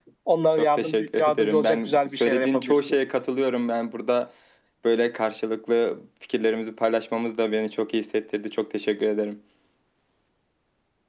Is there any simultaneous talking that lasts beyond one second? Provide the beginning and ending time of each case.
0.6-3.0

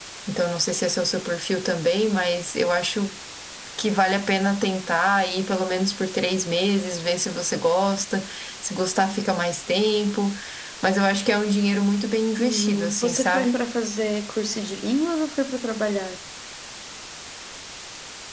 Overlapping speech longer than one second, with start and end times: 12.4-13.6

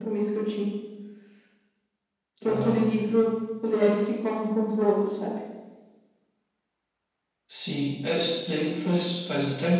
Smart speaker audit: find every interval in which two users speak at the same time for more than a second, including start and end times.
none

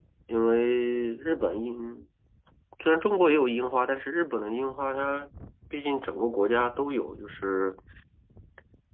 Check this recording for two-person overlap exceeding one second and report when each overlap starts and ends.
none

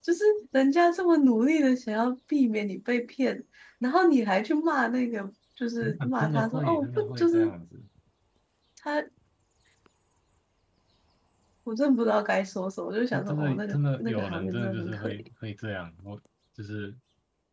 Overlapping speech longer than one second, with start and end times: 5.8-7.5, 13.1-15.2

